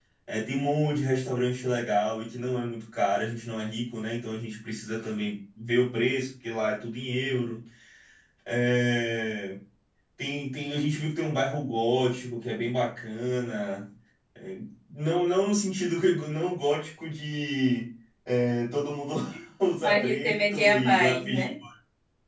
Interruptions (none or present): present